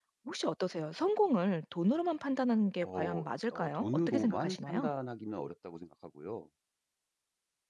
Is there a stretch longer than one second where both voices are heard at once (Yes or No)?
Yes